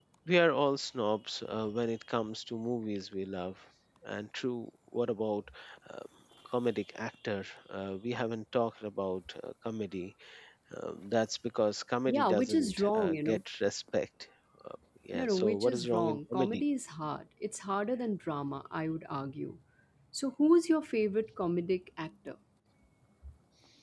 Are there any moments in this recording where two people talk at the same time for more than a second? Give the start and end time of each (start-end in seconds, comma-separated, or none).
12.1-13.4, 15.1-16.6